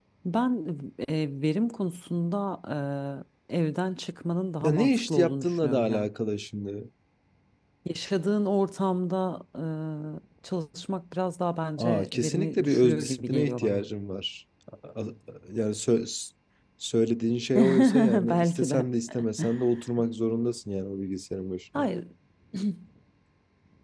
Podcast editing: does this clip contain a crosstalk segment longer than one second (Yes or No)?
Yes